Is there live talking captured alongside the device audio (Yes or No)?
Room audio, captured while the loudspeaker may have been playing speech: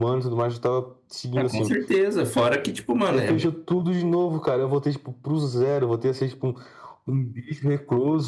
Yes